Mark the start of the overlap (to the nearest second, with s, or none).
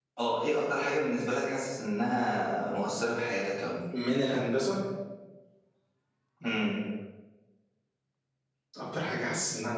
none